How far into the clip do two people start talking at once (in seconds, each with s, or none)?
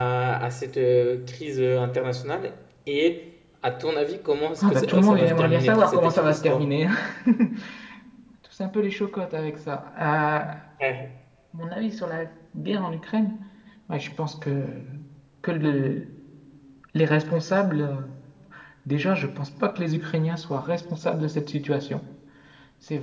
4.6 s